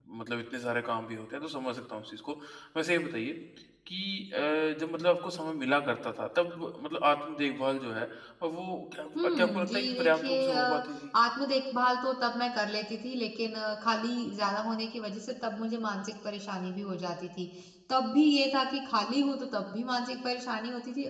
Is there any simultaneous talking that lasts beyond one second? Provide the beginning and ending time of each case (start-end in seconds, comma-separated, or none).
9.2-10.8